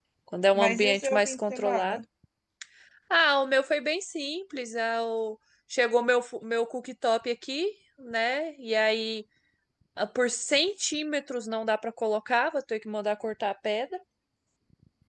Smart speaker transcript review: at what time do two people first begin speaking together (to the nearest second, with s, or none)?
1 s